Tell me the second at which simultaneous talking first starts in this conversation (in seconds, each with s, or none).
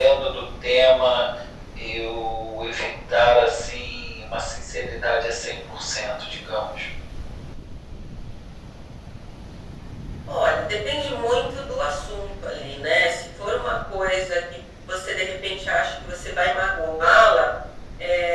none